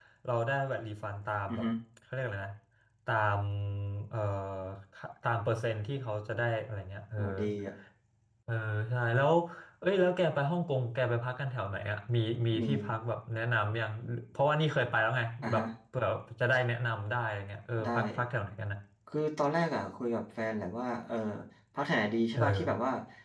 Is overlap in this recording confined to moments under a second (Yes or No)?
Yes